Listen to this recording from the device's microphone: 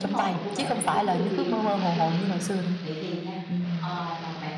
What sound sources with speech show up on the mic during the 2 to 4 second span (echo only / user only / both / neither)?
both